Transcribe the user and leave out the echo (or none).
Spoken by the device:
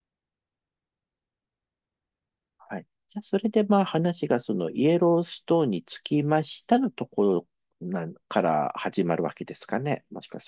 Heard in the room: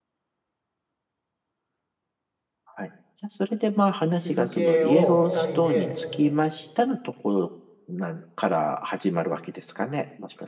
日付を2人で